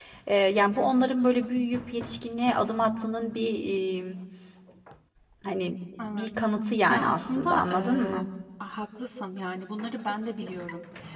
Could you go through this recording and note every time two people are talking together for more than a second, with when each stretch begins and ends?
6.9-8.2

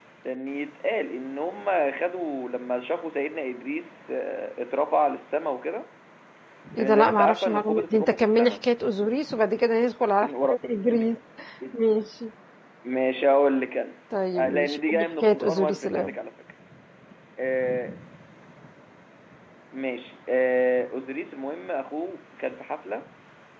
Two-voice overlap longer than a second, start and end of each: 6.8-8.6, 14.3-15.9

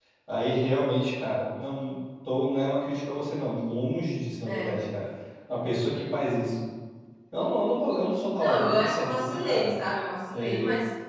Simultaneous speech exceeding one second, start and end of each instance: 8.4-9.7

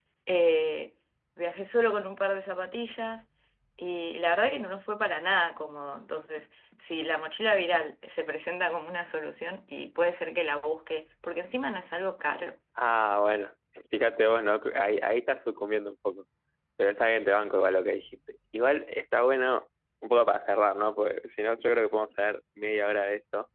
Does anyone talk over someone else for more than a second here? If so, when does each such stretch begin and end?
none

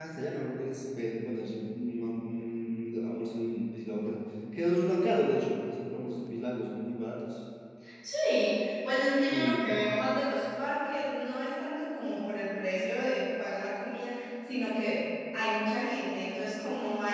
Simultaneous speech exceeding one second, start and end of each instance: none

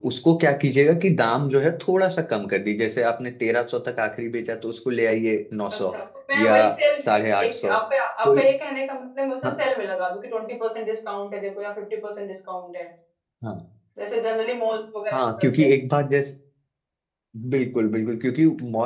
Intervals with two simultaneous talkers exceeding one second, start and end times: none

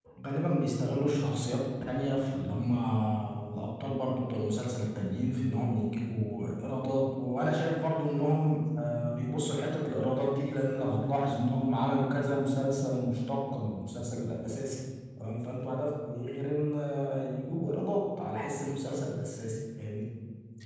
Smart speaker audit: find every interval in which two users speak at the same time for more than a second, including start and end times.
none

